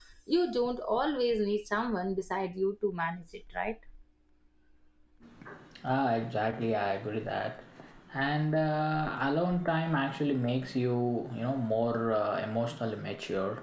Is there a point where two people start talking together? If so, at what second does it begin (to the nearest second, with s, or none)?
none